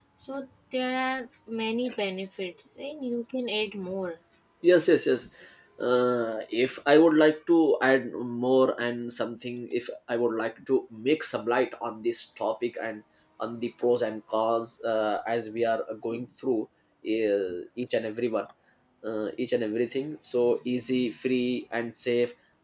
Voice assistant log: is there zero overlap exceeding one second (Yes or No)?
Yes